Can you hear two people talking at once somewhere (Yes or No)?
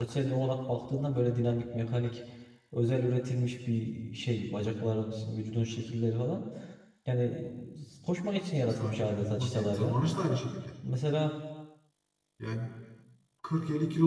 Yes